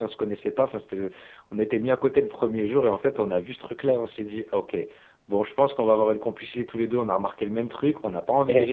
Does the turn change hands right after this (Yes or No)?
No